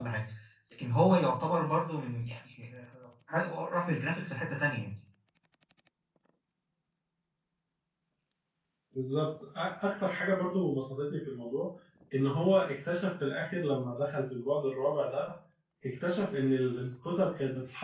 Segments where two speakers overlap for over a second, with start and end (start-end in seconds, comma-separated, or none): none